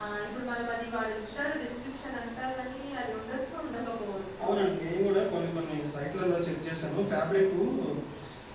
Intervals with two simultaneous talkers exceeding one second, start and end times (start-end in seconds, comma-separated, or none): none